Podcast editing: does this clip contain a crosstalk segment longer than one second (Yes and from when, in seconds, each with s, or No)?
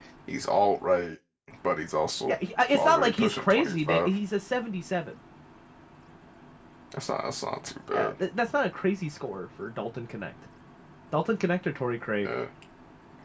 Yes, from 2.8 s